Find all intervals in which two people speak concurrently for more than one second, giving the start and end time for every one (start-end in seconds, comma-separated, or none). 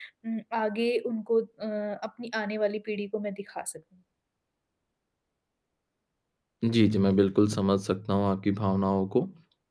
none